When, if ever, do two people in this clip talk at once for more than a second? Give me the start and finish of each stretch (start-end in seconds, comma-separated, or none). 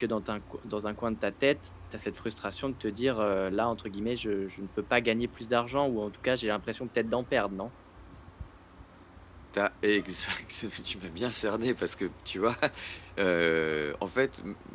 none